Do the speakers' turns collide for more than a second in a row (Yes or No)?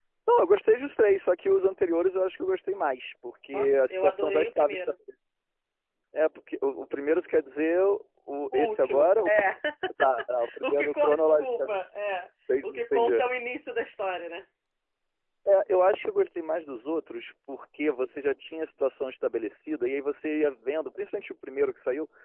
Yes